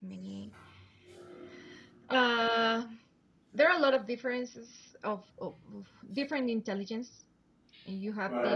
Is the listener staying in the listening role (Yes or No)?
Yes